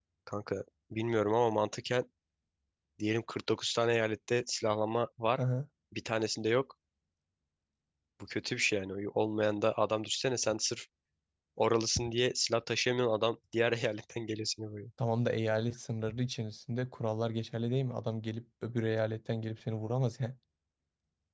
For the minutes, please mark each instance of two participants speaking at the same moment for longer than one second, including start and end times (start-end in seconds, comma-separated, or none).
none